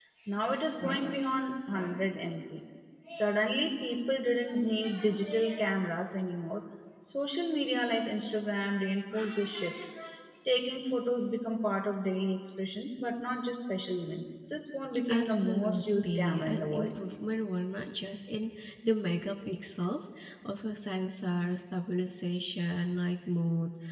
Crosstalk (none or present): present